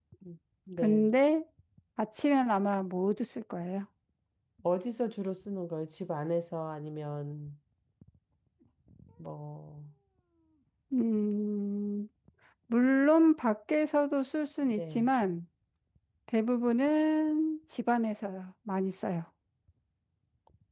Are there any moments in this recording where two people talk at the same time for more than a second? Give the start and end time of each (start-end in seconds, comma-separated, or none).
none